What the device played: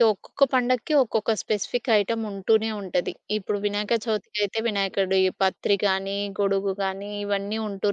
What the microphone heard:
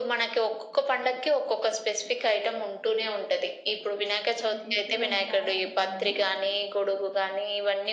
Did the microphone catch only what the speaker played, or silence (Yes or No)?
No